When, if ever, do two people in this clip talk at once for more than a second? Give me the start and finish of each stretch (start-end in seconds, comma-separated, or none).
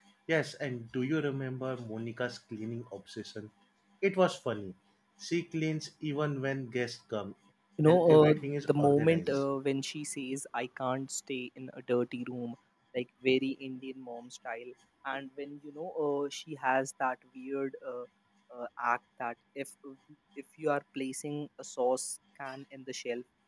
7.8-9.4